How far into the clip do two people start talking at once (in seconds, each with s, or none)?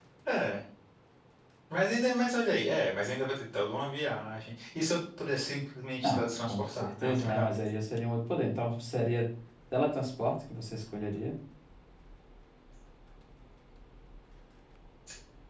6.0 s